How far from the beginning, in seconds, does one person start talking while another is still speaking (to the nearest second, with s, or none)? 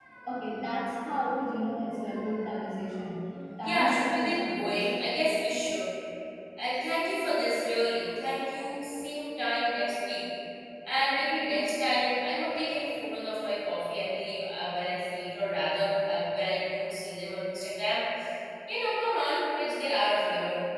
4 s